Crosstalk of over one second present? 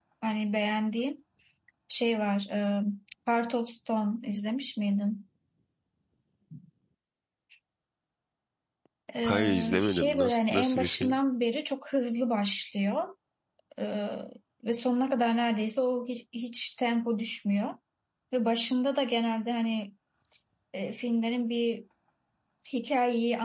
Yes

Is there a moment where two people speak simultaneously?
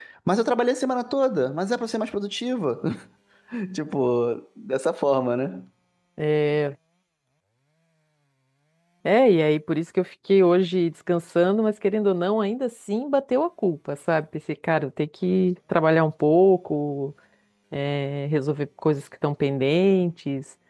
No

